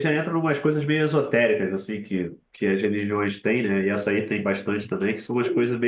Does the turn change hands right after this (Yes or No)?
No